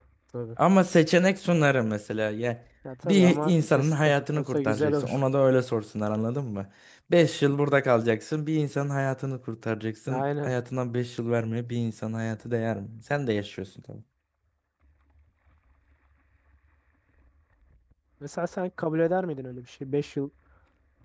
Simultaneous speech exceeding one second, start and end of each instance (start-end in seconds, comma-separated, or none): 3.0-5.2